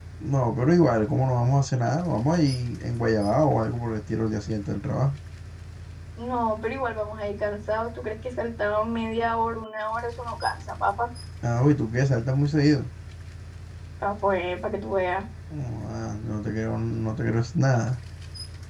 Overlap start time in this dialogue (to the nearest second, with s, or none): none